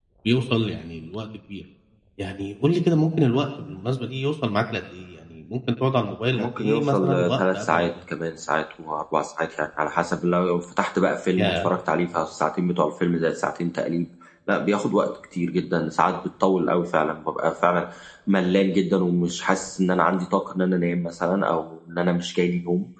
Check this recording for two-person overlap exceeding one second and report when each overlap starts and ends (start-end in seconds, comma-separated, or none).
6.3-7.9